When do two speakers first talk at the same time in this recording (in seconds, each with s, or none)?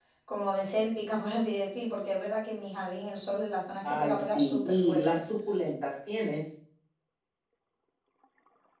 3.8 s